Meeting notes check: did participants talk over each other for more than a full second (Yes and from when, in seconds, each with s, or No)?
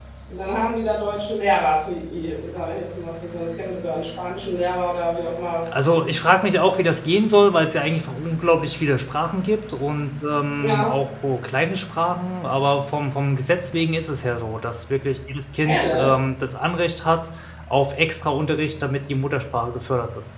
No